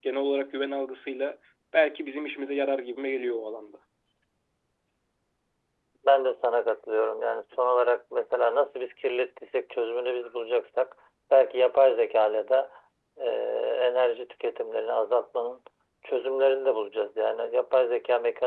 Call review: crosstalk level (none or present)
none